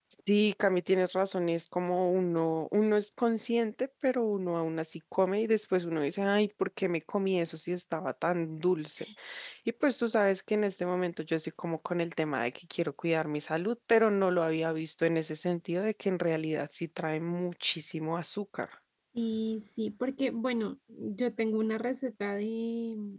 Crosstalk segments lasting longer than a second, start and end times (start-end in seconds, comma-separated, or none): none